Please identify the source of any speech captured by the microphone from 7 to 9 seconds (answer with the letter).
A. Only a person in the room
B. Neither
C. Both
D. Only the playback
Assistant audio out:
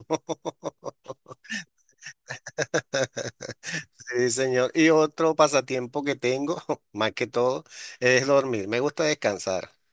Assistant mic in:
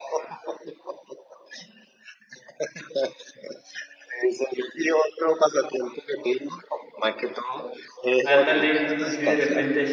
C